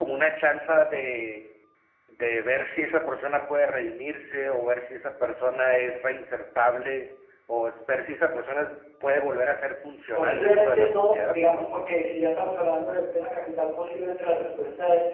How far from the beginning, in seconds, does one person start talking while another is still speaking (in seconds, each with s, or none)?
10.2 s